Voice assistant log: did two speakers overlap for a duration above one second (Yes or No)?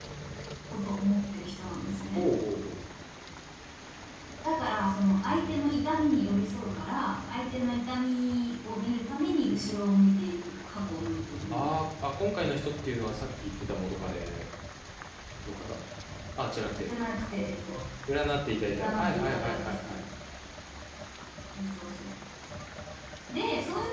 Yes